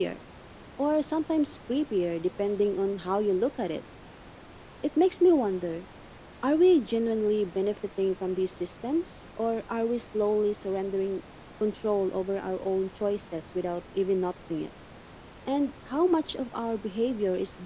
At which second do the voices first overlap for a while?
none

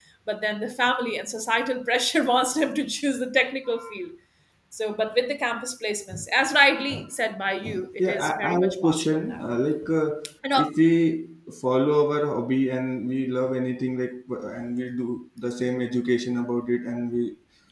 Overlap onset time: 8.0 s

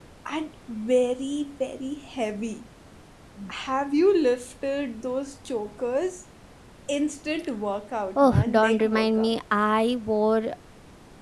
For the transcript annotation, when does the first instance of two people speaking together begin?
8.2 s

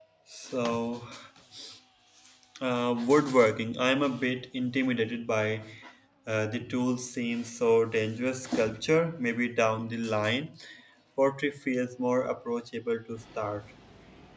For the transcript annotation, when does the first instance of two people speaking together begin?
none

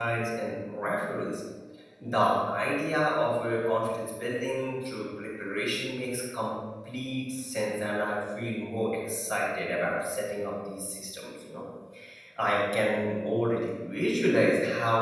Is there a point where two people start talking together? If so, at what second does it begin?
none

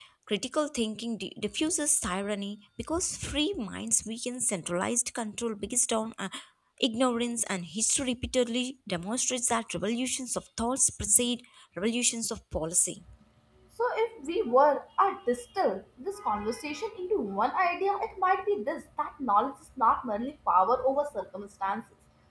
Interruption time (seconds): none

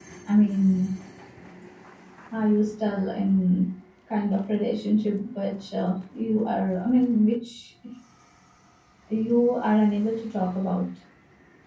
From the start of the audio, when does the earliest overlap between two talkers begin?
none

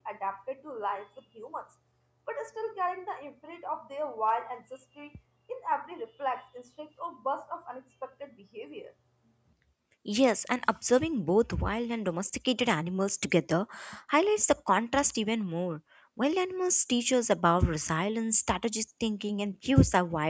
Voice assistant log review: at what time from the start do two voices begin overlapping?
none

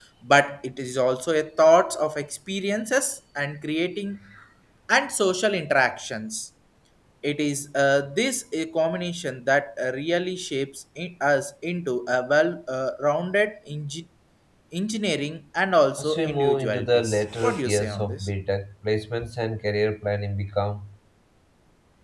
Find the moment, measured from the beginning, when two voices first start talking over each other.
16.0 s

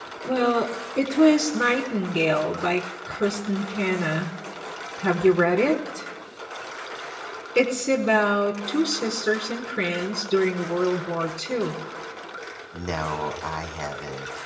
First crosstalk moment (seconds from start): none

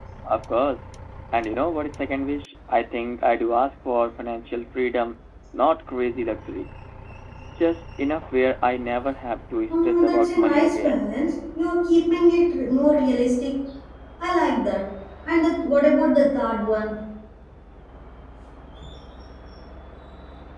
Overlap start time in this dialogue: 9.7 s

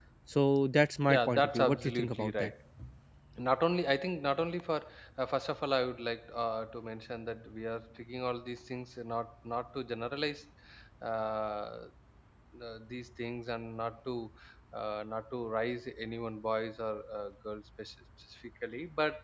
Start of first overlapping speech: 1.1 s

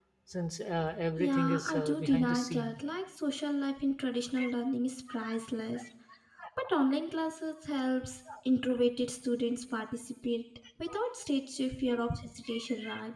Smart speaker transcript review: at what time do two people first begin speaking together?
1.2 s

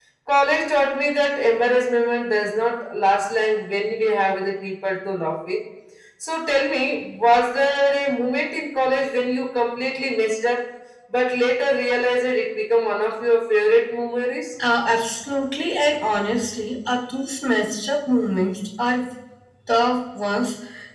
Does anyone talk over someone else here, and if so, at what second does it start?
none

